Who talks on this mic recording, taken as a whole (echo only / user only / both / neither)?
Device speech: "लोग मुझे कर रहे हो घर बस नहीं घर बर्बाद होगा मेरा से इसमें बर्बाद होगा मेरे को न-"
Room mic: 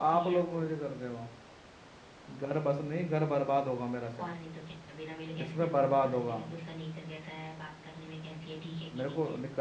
both